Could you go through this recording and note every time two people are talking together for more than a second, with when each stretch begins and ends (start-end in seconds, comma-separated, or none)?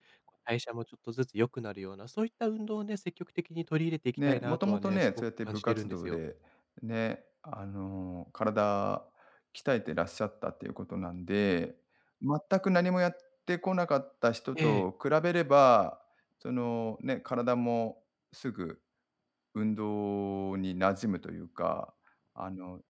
4.3-6.2